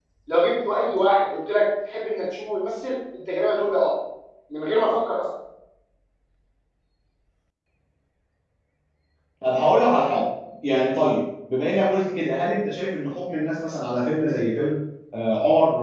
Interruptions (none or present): none